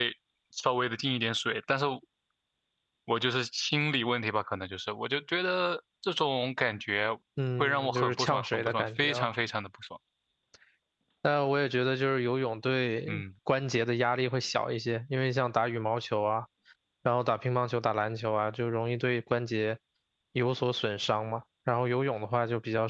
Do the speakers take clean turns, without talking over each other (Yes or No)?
No